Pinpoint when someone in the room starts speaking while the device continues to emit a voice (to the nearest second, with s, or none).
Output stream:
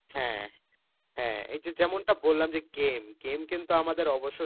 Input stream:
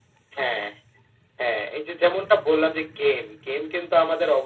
none